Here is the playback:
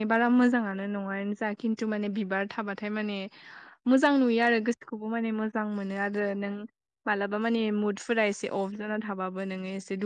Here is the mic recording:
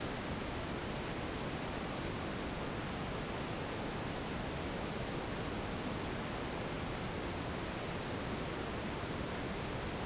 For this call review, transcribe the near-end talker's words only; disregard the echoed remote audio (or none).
none